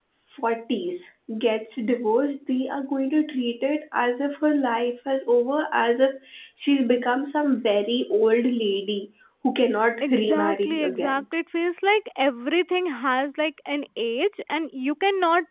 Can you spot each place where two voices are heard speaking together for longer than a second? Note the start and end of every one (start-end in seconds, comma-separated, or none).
10.0-11.2